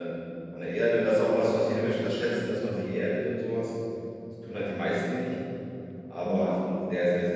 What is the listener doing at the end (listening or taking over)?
listening